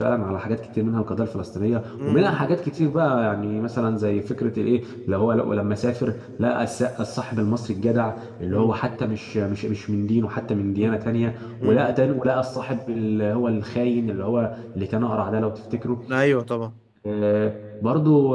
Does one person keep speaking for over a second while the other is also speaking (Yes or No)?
No